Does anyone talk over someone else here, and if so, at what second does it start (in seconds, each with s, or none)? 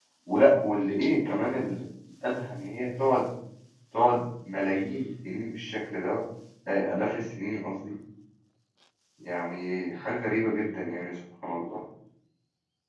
none